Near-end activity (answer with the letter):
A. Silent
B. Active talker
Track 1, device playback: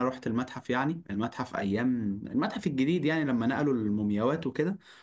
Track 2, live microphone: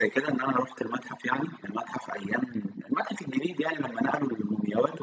A